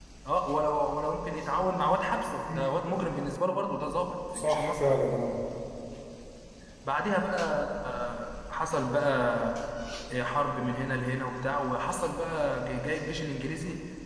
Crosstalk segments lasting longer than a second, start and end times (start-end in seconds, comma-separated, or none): none